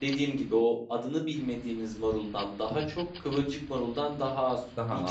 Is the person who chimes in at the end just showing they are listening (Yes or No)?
Yes